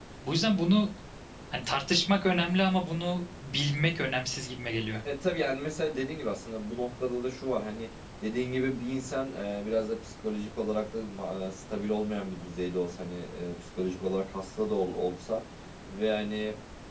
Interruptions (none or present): none